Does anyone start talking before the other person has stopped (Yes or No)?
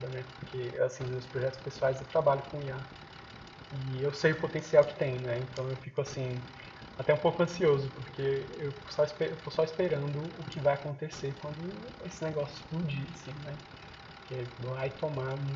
No